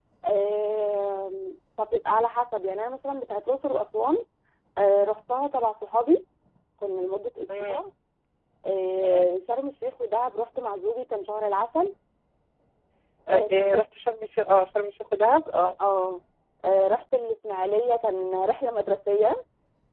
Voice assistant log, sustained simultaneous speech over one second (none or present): none